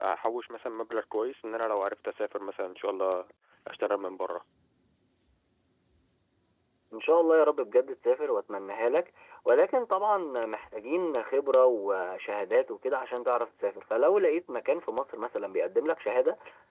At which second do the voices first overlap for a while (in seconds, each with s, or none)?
none